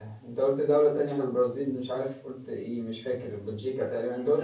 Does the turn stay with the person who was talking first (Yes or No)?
No